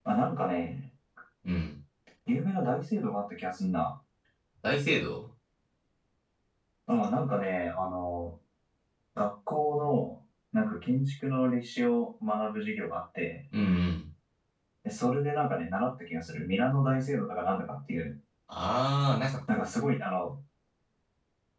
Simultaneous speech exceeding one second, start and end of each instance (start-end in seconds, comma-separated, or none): none